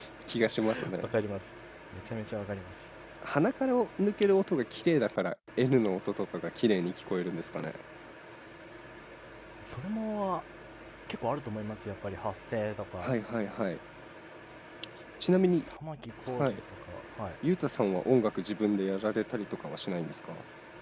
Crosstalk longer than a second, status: none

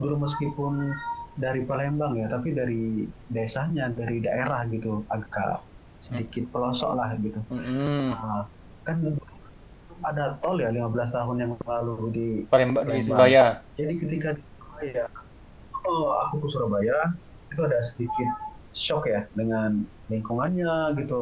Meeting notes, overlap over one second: none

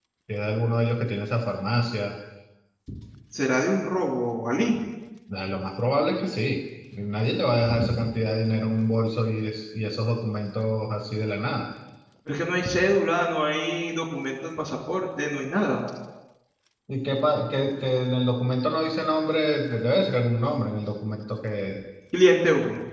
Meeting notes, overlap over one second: none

